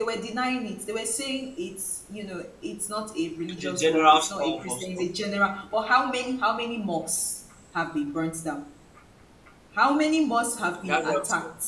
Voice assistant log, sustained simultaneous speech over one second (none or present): present